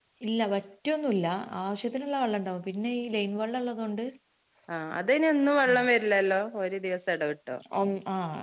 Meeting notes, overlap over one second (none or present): none